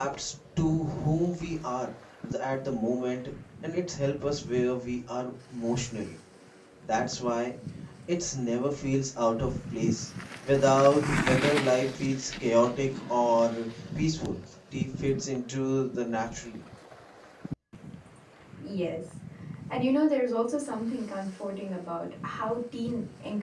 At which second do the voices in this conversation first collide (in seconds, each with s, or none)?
none